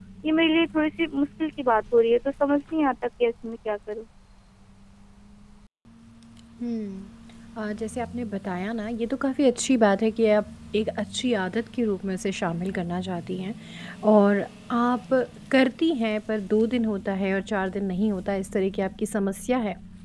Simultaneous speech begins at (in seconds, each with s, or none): none